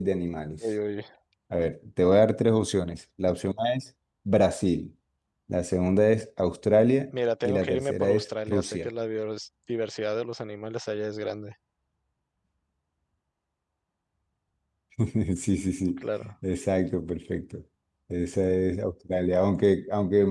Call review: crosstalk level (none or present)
present